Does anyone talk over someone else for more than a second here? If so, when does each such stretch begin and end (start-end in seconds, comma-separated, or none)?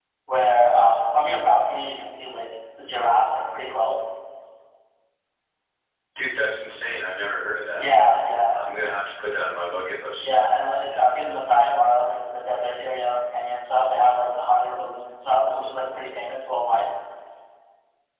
none